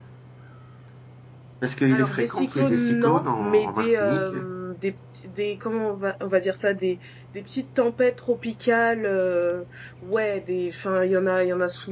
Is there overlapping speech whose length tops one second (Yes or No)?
Yes